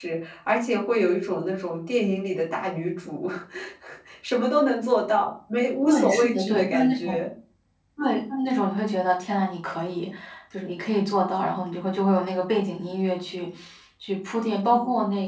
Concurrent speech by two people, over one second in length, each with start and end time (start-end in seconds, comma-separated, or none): 5.8-7.2